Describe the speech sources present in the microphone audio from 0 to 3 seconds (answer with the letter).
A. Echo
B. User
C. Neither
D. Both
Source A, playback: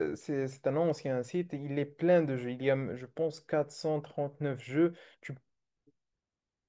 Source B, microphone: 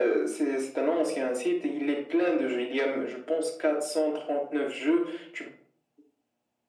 A